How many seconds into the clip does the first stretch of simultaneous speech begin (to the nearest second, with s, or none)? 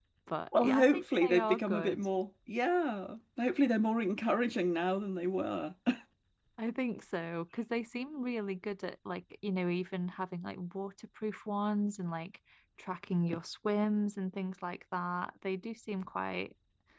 1 s